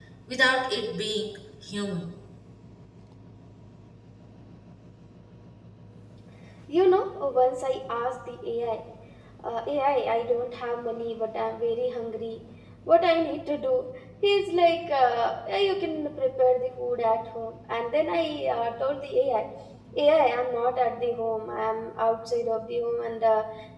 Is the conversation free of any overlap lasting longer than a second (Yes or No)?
Yes